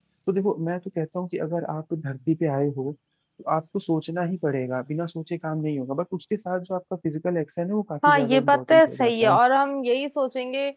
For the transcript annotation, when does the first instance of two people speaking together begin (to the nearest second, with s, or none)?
8 s